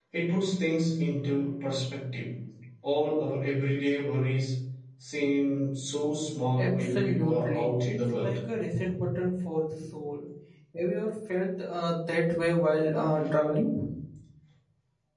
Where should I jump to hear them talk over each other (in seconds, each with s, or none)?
6.6 s